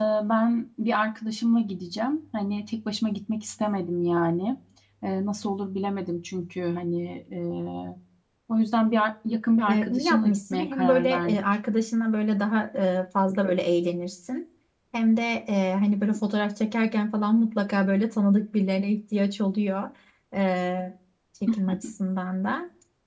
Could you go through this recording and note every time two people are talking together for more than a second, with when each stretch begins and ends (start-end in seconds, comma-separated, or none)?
9.7-11.4